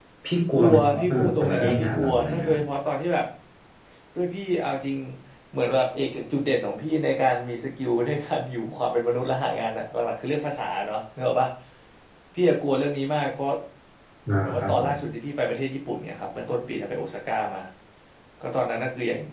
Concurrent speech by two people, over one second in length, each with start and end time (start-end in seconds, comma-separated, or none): 0.6-2.6